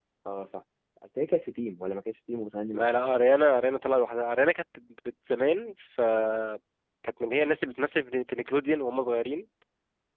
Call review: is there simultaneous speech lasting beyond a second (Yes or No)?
No